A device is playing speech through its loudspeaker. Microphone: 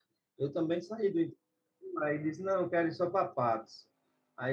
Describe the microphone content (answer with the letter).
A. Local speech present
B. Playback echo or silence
A